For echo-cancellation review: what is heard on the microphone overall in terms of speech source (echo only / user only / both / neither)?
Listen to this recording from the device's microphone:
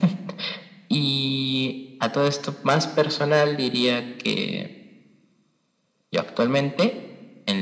echo only